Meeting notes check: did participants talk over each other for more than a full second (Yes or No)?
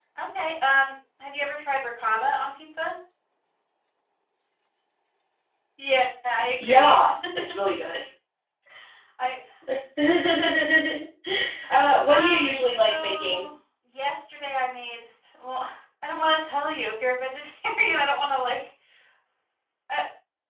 Yes